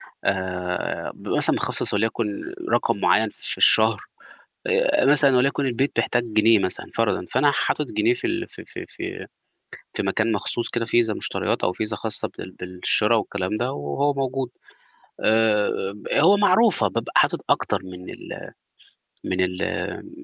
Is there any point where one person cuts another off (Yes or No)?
No